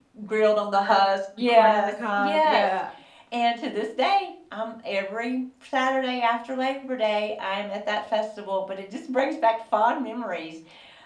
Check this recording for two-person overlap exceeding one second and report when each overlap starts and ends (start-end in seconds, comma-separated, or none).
1.5-2.7